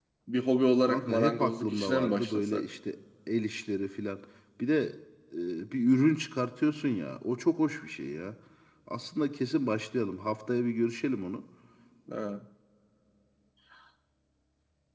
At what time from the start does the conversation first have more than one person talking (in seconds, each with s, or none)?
0.9 s